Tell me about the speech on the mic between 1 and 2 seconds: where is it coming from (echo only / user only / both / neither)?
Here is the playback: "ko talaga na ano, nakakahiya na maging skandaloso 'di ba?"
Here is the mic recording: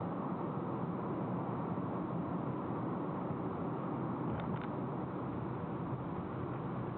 neither